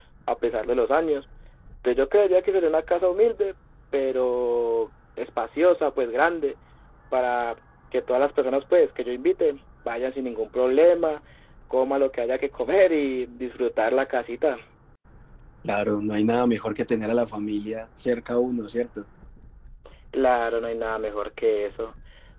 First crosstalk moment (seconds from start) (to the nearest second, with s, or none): none